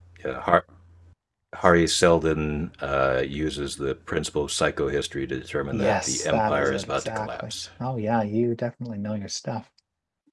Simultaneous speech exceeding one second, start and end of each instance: 5.7-7.5

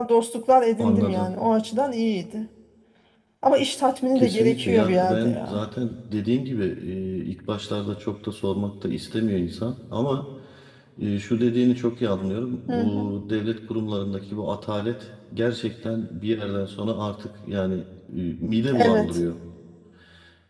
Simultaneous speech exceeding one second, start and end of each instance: 4.2-5.6

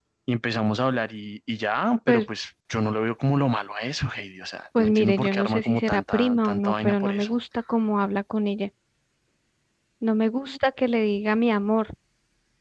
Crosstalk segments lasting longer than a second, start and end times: 4.8-7.4

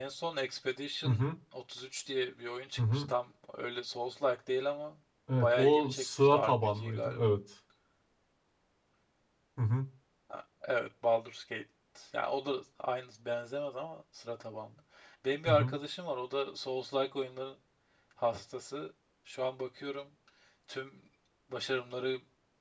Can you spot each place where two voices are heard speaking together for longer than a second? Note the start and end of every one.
5.4-7.4

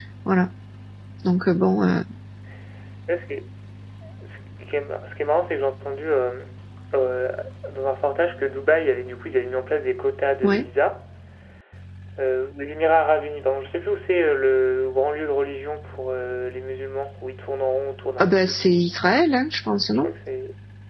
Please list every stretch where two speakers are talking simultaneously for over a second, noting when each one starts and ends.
none

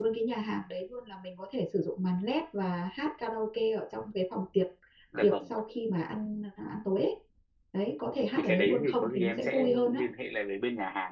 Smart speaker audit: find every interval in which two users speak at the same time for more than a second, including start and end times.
8.3-10.0

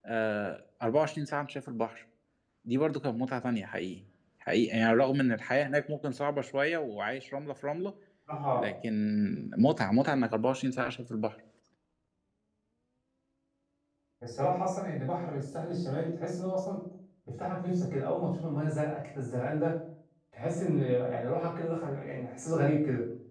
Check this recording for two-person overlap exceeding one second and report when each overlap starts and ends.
none

